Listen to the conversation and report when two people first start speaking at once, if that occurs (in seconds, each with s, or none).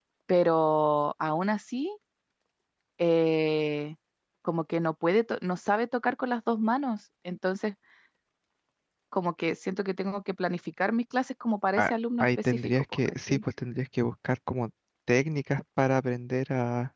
12.2 s